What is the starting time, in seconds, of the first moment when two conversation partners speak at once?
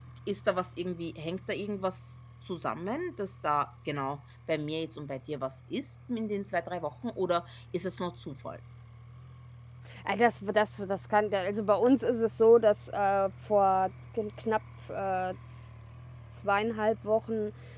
none

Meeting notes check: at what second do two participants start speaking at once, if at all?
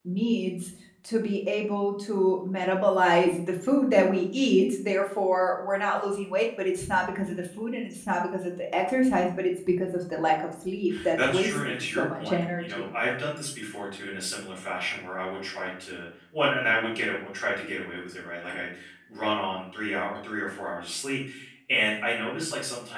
11 s

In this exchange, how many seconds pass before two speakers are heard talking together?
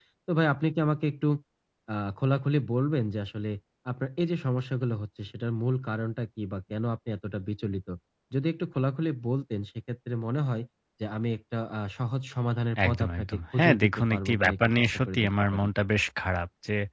13 s

